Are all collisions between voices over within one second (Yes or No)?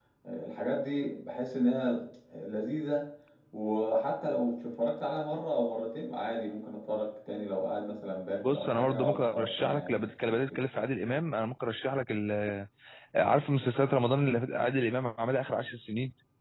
No